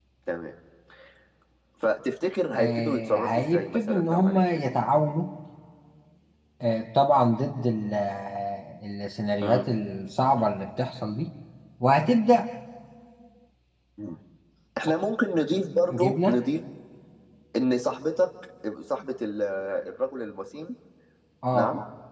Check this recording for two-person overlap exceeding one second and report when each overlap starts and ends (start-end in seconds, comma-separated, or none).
2.5-4.4